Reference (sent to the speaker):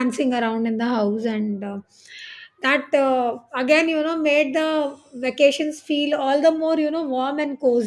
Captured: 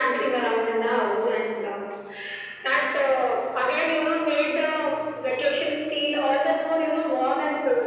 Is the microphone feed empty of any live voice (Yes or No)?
Yes